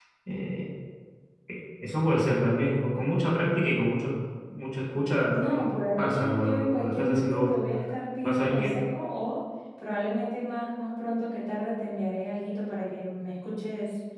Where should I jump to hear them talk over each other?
5.3 s

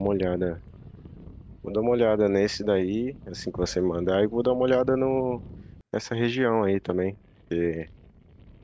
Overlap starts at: none

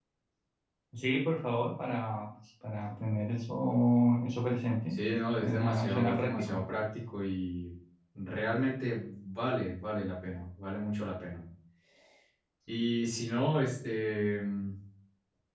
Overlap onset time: 5.4 s

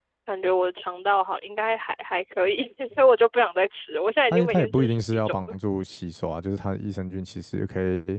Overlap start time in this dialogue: 4.3 s

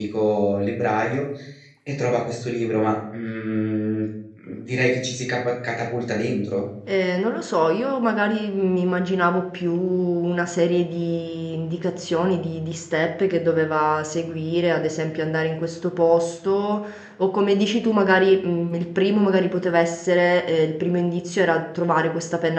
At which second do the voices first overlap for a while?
none

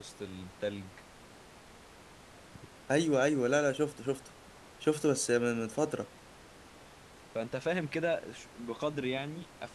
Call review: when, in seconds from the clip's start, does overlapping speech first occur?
none

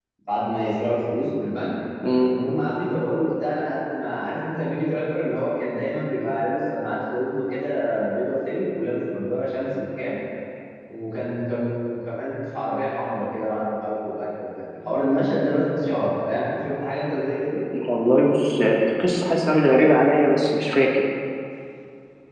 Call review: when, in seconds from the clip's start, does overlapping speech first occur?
none

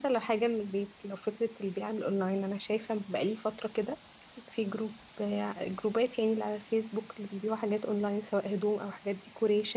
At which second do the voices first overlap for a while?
none

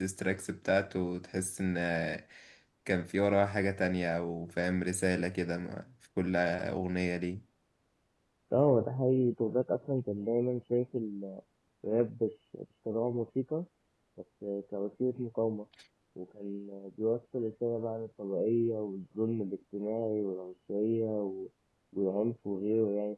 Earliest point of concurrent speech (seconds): none

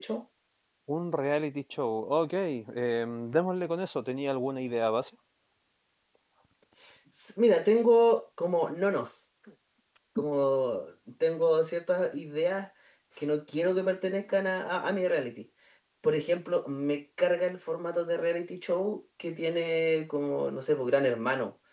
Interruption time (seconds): none

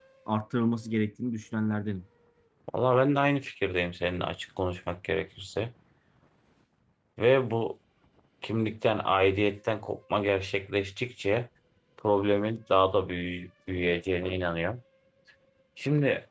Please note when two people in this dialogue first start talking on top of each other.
none

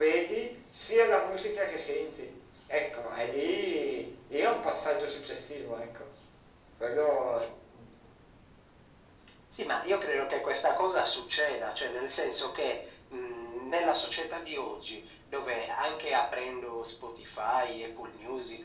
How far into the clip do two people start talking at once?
none

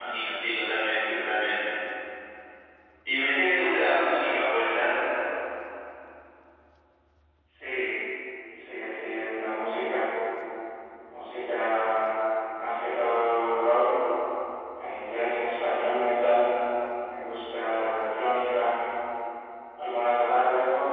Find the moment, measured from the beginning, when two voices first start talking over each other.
none

